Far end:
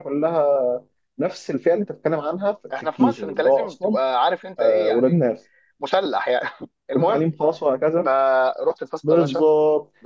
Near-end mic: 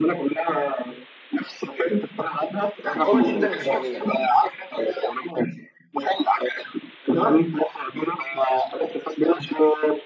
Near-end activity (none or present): present